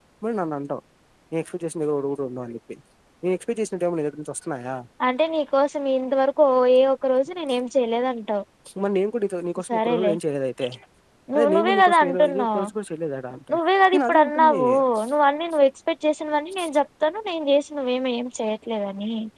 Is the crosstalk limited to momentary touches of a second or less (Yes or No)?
No